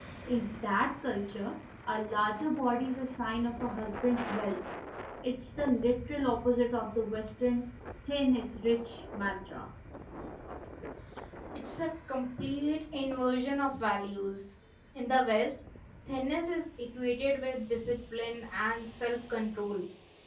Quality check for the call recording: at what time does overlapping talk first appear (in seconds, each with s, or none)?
none